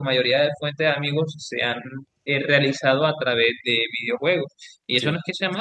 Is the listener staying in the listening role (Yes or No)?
Yes